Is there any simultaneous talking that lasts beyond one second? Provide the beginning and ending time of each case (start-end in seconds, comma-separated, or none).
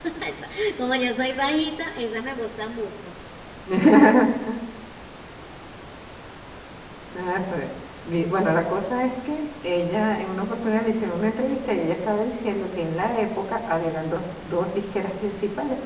none